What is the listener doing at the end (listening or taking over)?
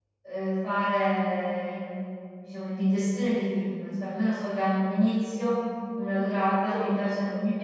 listening